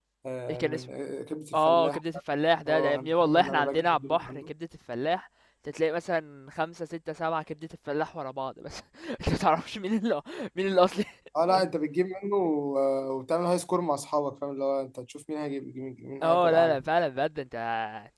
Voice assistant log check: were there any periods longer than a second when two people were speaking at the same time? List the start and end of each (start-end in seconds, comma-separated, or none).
2.7-4.5